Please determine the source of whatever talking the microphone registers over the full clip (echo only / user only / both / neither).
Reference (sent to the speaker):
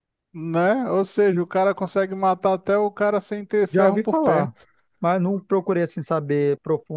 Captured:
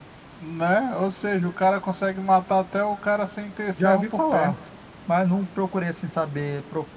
echo only